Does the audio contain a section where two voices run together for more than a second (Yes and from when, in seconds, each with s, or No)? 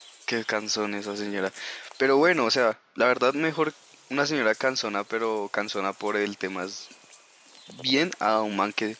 No